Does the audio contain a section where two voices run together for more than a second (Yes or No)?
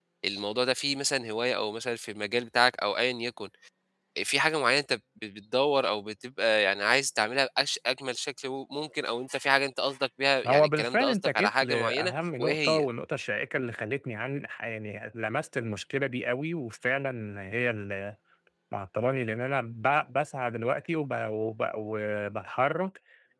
Yes